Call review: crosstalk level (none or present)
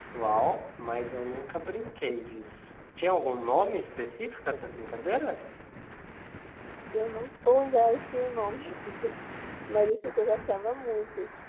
none